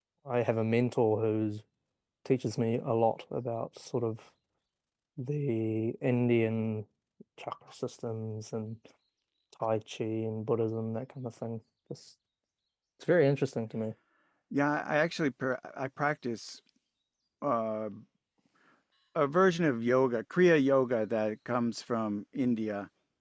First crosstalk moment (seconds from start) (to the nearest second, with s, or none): none